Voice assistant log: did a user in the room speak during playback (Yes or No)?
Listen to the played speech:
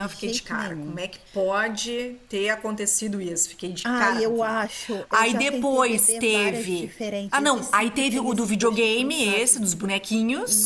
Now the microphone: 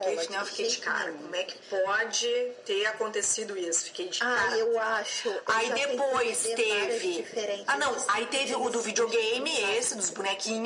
No